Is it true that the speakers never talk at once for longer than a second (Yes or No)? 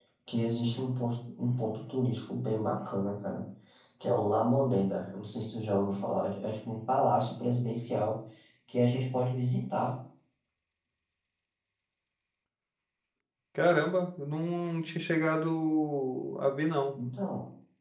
Yes